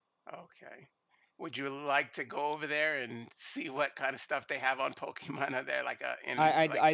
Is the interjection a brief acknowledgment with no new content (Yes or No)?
No